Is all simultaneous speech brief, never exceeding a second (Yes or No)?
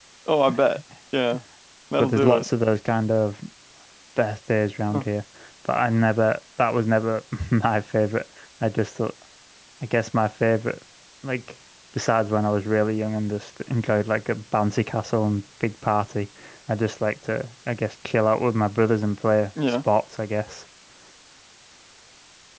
Yes